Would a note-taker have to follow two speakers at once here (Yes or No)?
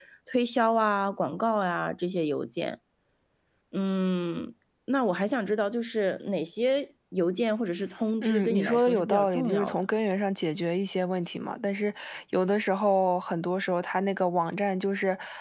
Yes